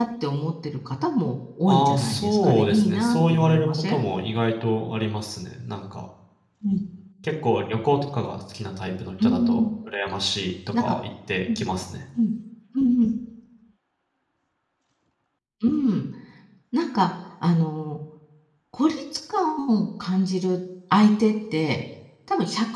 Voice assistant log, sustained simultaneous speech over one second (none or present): present